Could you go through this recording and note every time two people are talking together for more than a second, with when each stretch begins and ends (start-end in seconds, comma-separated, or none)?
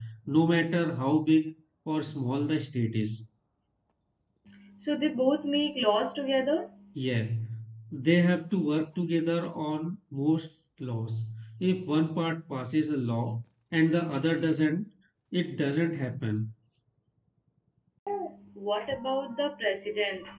none